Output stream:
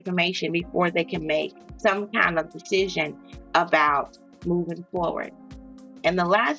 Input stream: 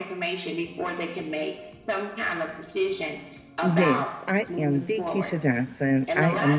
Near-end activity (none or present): present